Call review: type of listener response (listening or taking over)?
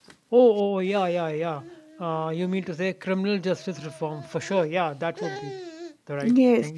taking over